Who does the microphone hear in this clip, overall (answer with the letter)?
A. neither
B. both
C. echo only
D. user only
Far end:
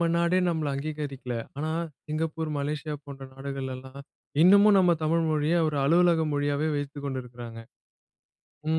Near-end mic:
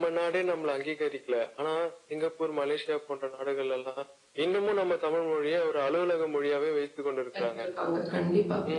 B